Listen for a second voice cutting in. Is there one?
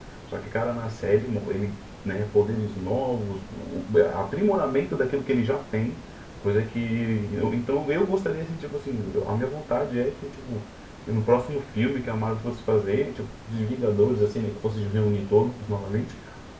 No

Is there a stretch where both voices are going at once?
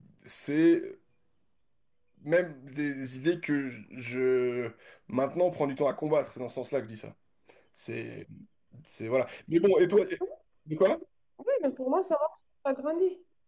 No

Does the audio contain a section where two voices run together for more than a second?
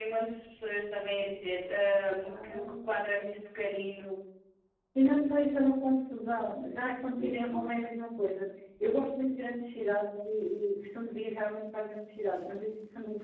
No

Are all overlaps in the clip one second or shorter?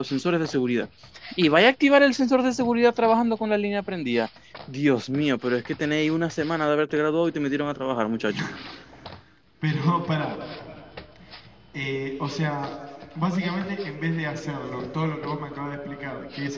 Yes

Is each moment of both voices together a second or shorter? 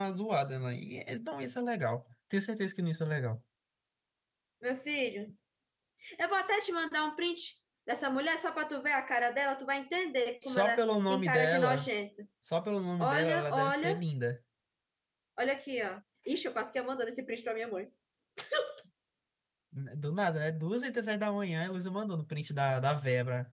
No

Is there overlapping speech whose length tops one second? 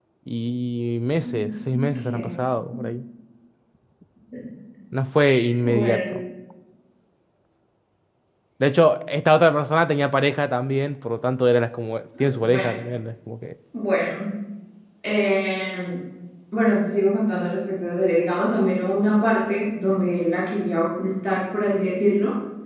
No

